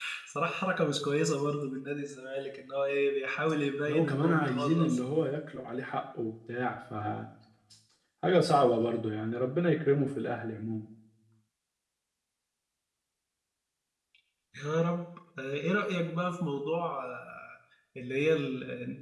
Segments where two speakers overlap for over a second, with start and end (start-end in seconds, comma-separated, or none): 3.9-5.1